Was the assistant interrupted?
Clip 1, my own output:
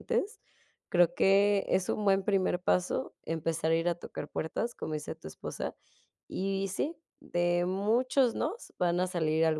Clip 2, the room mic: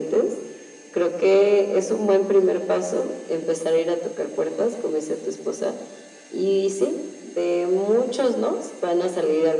No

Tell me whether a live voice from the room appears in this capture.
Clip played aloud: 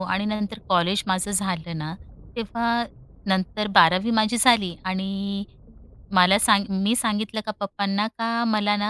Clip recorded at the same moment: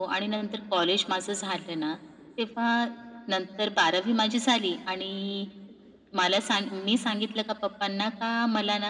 No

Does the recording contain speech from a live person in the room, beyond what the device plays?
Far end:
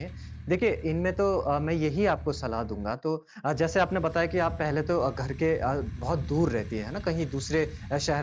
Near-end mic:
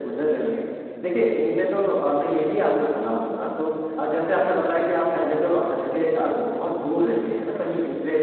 No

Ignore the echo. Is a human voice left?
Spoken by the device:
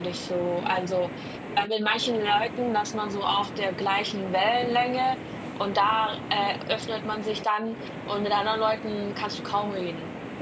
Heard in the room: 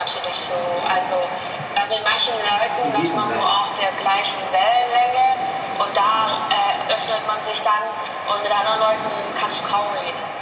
Yes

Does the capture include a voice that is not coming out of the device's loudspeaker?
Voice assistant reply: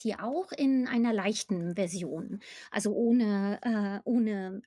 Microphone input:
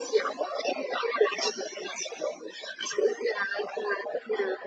No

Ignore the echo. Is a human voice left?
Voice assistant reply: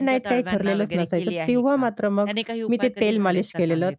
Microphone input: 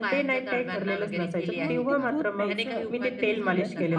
Yes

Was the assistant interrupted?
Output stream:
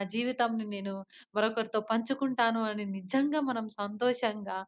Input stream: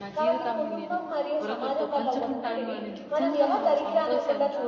Yes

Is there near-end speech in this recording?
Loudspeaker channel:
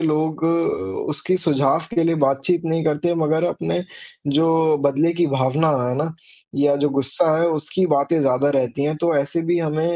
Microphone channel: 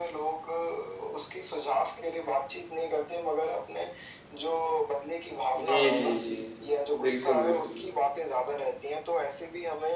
Yes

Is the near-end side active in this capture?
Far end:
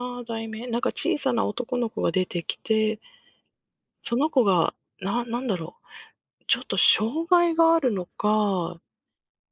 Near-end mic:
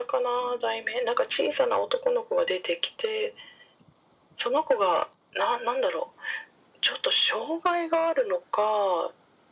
No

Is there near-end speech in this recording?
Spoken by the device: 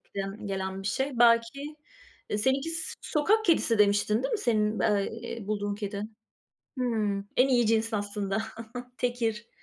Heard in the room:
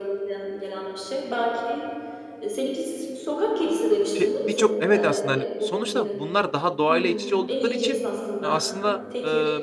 Yes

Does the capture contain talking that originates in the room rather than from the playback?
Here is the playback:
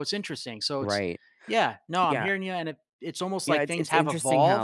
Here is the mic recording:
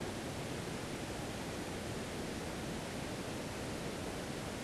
No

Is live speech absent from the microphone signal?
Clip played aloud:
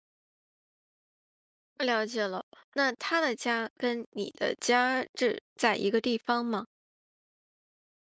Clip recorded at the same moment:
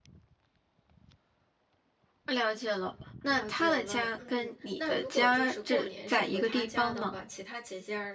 No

